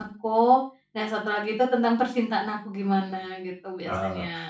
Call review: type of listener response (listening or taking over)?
taking over